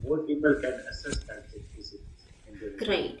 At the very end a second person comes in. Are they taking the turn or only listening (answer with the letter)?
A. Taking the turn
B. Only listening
A